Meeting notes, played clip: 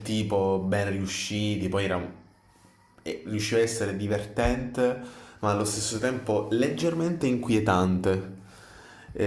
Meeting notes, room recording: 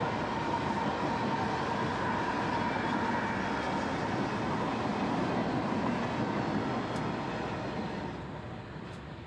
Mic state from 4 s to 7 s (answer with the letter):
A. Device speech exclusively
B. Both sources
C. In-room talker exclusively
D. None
D